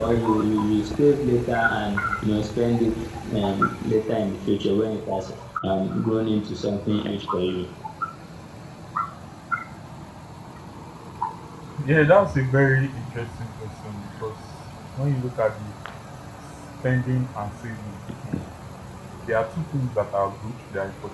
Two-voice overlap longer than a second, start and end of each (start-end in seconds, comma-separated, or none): none